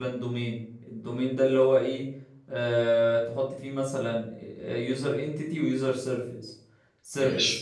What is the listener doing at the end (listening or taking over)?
listening